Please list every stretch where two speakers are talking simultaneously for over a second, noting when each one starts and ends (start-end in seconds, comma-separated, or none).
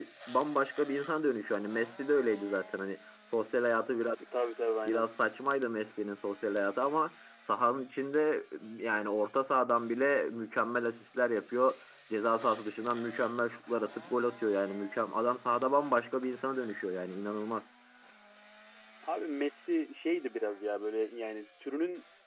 none